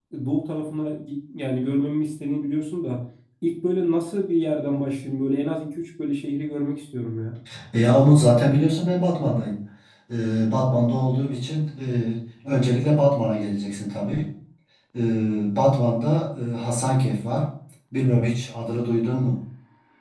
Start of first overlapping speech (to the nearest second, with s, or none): none